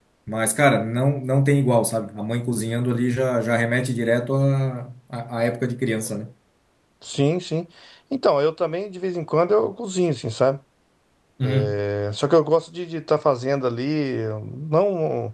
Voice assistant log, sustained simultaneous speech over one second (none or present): none